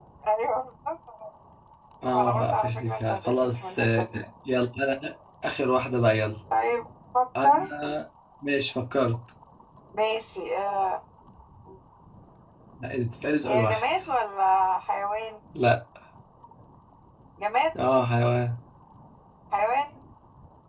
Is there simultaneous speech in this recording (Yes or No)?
Yes